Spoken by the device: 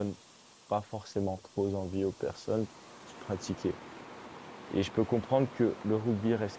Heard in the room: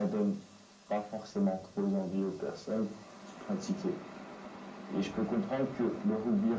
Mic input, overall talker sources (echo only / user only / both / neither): echo only